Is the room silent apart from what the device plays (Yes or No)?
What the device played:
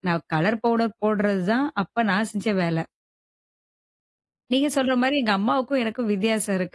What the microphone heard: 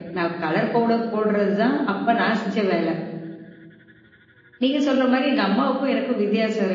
Yes